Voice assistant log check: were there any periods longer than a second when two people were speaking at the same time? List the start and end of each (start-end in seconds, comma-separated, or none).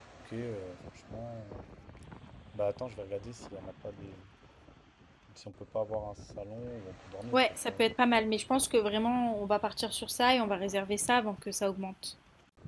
none